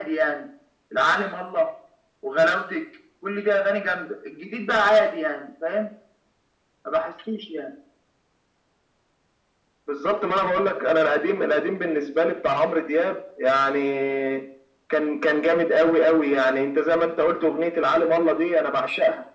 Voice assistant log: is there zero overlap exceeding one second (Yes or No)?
Yes